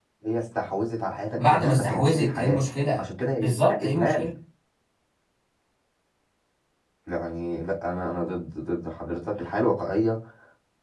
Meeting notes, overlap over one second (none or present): present